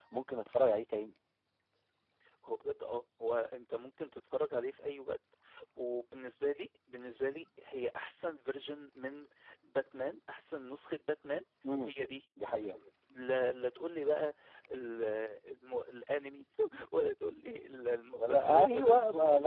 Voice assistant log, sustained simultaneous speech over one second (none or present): present